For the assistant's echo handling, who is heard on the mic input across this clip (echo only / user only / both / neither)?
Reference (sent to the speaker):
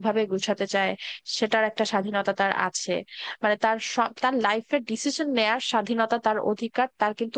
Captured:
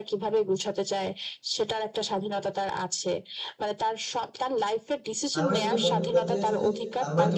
both